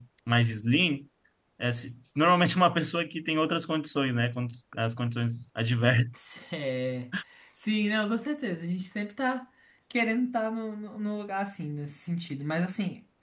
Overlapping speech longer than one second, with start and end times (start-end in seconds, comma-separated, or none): none